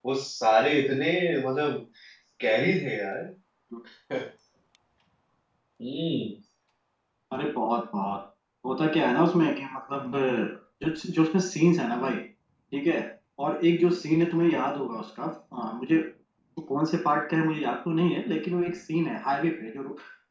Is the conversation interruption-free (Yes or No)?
Yes